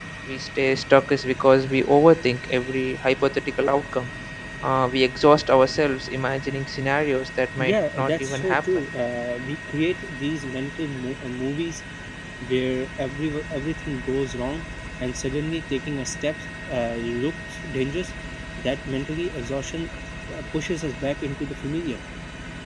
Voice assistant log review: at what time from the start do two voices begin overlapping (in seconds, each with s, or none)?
7.6 s